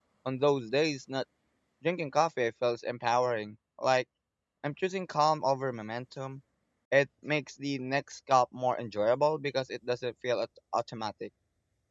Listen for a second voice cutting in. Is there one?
No

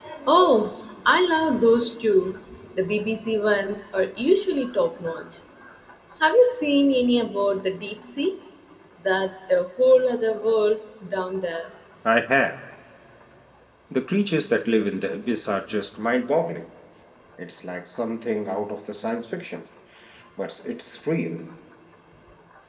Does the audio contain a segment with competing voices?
No

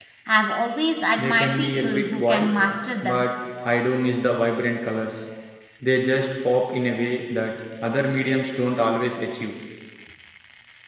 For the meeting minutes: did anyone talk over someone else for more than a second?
Yes, from 1.2 s

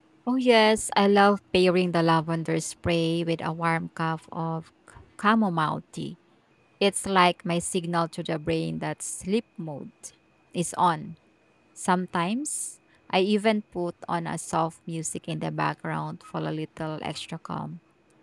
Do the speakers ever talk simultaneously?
No

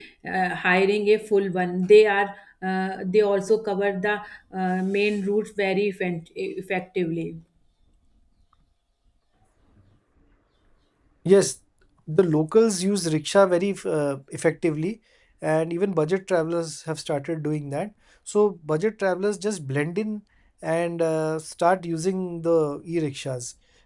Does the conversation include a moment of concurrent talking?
No

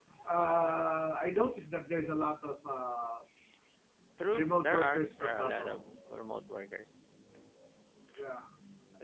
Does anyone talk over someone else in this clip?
Yes, from 4.3 s

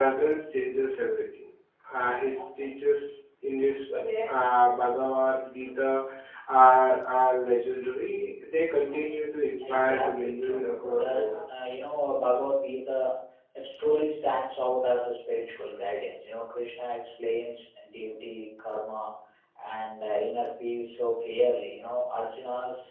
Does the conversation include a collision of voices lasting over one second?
Yes, from 9.6 s

